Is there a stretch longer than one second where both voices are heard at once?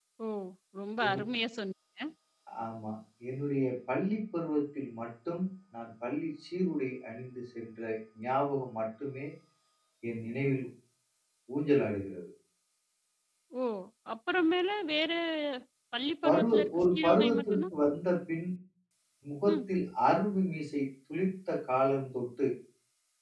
Yes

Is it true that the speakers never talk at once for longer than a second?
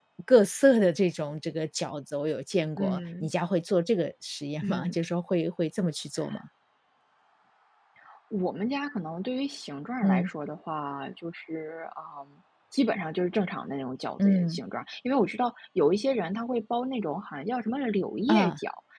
Yes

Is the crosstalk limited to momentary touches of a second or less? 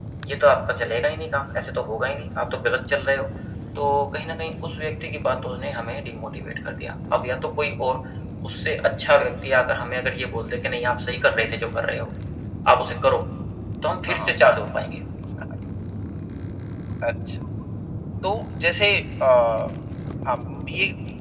Yes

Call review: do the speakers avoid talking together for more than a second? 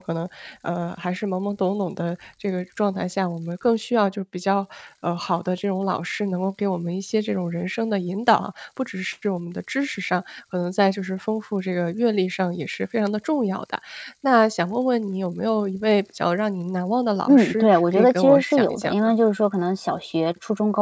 No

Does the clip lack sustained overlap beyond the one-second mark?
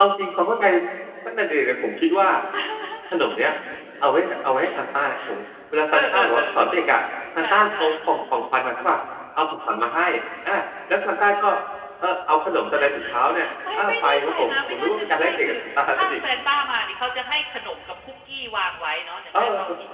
No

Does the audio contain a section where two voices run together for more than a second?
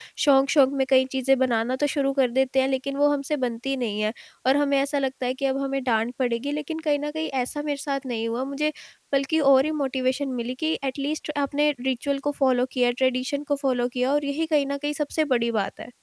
No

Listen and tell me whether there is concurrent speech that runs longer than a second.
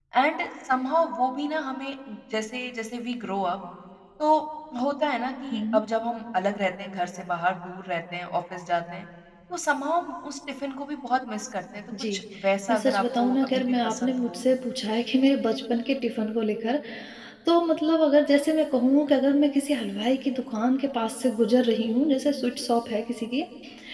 Yes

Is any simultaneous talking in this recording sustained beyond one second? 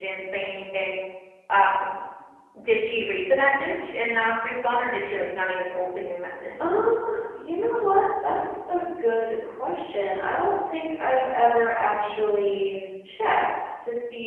No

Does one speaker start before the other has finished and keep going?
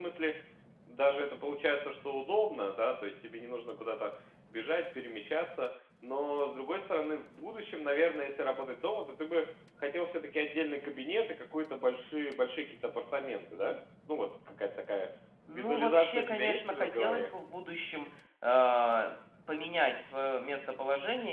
Yes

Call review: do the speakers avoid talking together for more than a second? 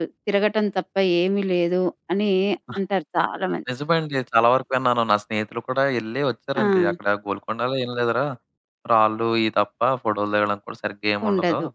Yes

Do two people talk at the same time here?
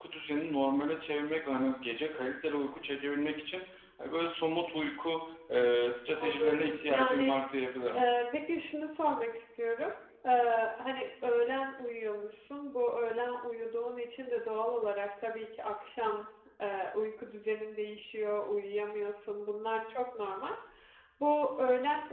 Yes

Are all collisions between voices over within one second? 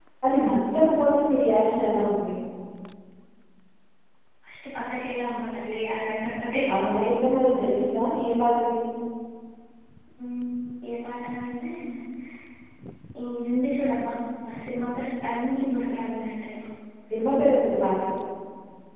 Yes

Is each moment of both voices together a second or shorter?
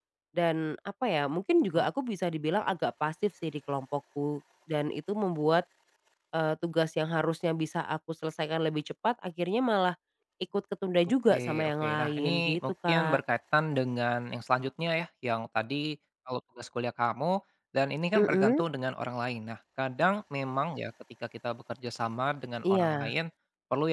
No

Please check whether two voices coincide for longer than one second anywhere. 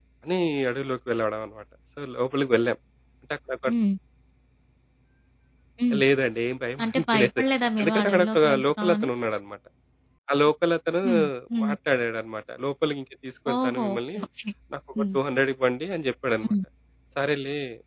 Yes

